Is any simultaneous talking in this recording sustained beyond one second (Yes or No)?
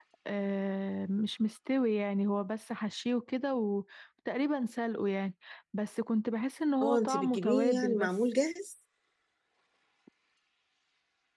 Yes